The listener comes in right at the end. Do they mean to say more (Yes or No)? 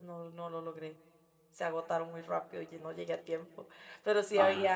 No